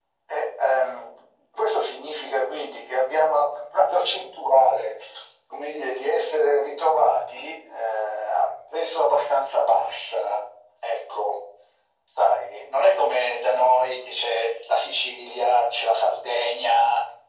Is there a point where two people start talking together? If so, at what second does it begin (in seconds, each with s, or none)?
none